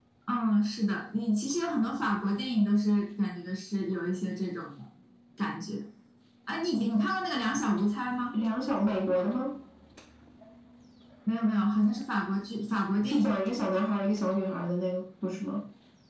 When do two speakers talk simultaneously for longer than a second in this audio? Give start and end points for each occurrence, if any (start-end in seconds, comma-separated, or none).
none